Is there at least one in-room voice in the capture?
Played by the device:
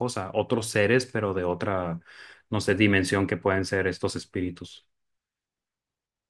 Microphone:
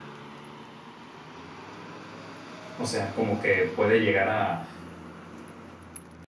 Yes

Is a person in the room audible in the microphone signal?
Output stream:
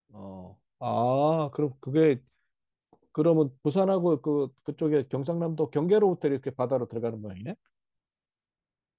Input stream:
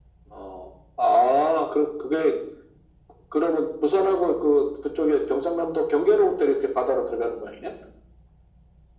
No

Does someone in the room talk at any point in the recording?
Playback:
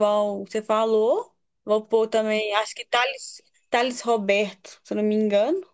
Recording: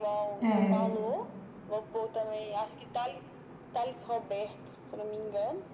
Yes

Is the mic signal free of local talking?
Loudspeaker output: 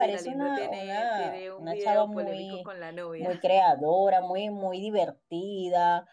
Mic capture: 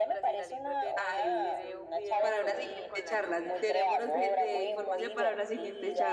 No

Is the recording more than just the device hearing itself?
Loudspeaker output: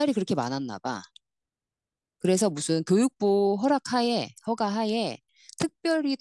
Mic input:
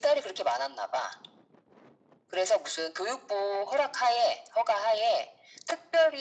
No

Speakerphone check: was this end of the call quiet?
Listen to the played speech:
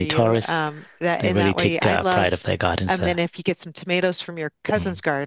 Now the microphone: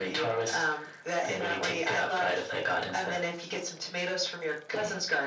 Yes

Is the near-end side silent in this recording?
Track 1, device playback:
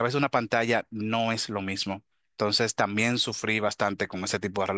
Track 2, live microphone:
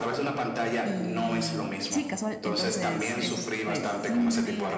No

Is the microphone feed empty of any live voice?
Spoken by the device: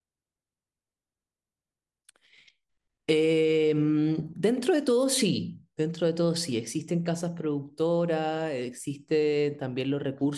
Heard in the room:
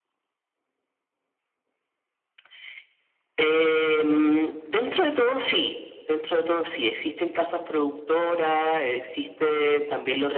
Yes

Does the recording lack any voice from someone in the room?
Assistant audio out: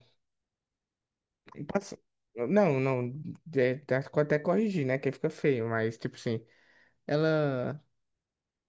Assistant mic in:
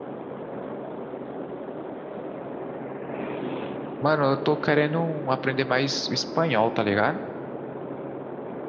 No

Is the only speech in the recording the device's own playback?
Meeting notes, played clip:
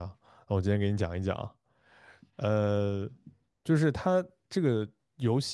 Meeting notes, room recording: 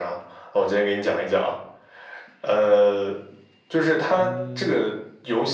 No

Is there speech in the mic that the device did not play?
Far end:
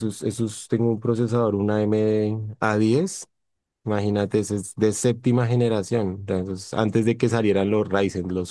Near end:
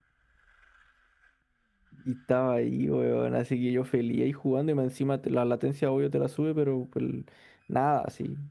Yes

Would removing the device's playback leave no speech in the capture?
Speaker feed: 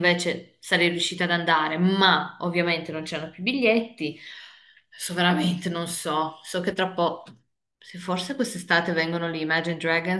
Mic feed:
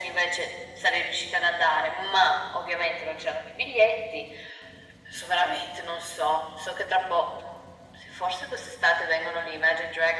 Yes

